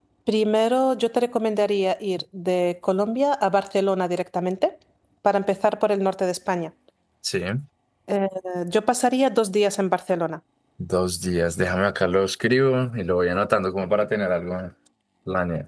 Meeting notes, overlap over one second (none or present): none